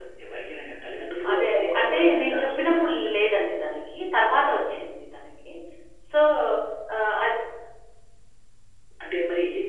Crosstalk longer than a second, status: present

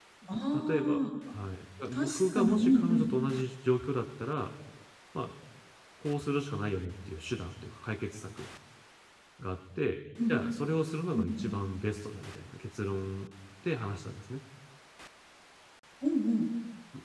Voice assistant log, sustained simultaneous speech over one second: present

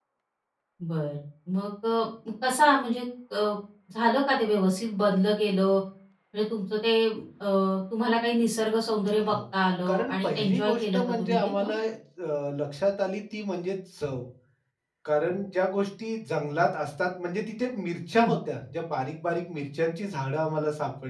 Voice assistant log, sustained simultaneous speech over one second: present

